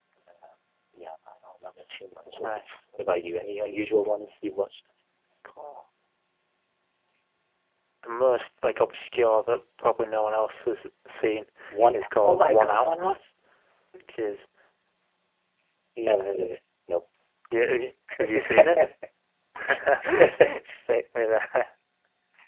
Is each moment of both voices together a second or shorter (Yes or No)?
No